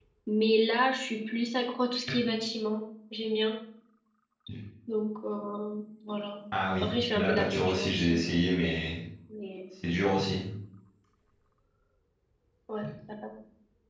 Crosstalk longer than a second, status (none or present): present